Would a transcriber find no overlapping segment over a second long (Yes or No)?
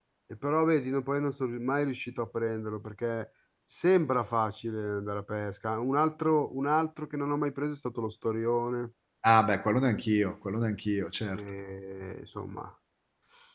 Yes